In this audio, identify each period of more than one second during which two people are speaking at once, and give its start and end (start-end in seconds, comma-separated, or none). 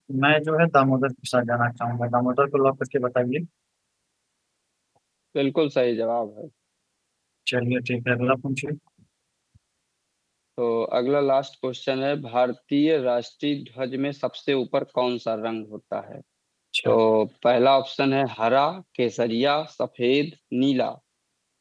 none